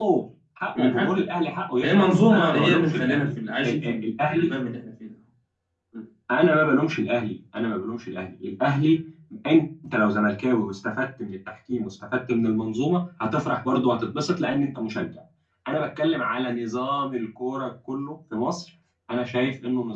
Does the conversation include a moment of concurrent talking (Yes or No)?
Yes